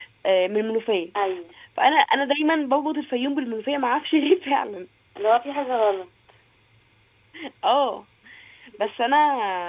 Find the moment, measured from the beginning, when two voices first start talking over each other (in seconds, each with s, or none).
none